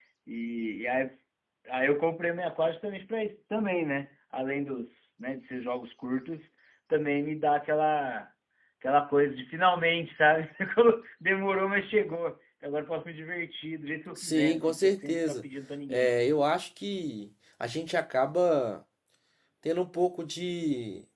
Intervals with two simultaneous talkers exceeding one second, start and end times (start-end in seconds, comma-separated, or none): 14.2-15.4